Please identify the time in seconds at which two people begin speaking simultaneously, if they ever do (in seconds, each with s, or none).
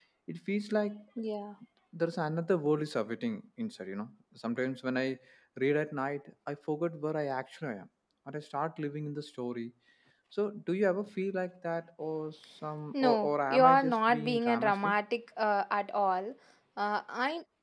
12.9 s